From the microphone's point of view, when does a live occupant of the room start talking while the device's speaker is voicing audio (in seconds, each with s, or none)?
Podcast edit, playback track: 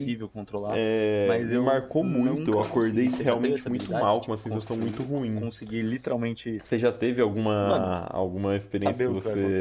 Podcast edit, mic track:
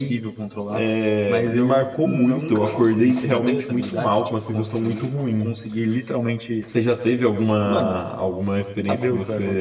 none